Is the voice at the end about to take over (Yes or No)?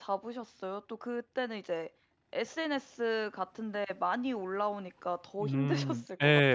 Yes